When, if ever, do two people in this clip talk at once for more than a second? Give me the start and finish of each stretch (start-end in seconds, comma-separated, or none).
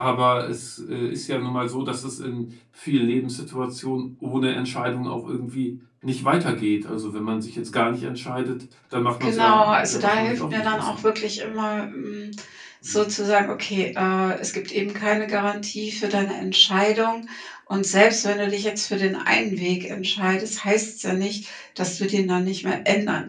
9.2-11.0